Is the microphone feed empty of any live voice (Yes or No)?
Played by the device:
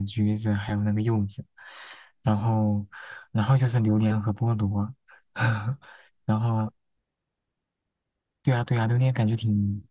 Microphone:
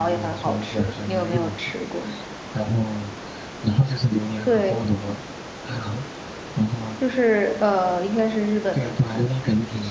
No